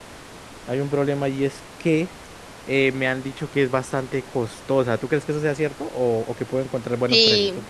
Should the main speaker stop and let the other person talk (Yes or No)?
Yes